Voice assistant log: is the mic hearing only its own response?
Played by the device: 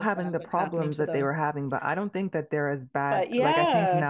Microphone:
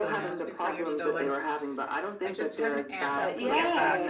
No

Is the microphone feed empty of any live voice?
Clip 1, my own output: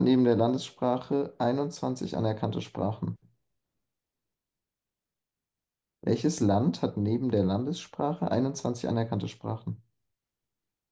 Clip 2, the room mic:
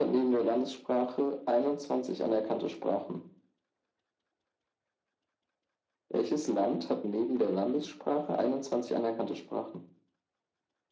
Yes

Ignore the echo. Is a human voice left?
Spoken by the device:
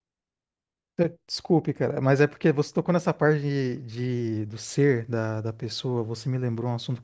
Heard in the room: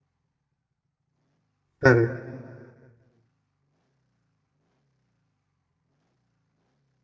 Yes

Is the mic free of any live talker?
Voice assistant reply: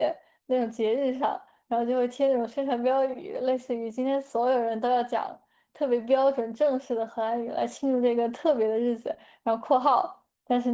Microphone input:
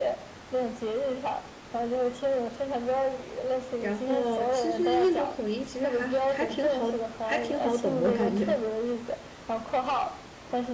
No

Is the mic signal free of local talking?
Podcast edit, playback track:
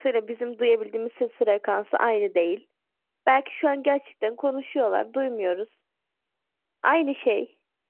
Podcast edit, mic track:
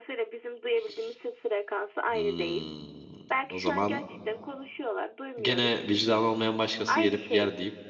No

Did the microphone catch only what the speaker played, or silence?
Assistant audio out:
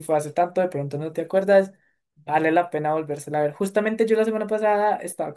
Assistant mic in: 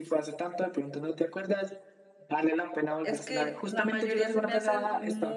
No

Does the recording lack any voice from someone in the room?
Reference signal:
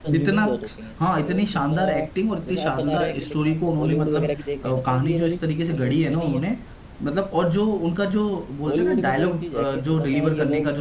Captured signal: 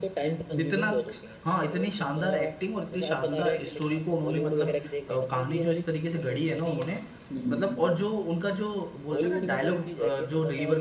No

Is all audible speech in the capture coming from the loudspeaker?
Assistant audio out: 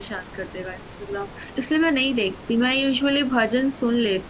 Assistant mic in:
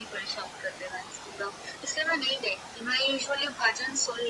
Yes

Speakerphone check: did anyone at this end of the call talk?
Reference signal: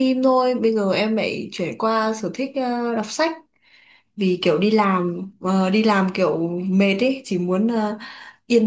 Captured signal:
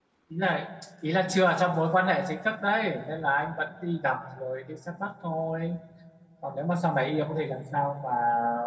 Yes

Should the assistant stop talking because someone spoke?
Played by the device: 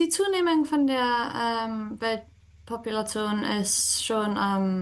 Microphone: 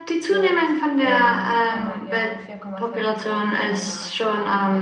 Yes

